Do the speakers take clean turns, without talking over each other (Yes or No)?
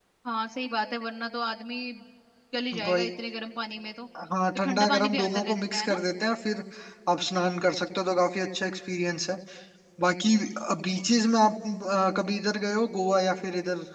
No